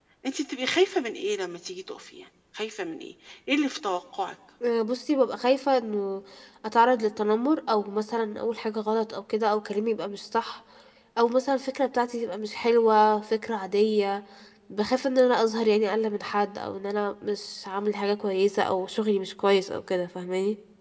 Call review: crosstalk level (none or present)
none